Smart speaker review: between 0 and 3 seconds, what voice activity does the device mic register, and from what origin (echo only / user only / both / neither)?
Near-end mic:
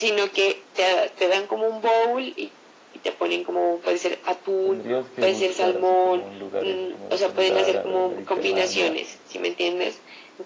echo only